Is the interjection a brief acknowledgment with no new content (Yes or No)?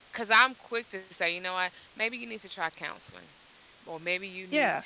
Yes